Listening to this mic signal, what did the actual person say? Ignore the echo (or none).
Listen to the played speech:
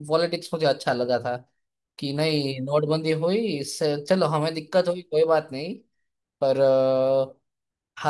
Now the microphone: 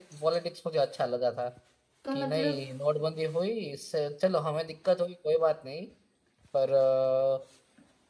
तो मतलब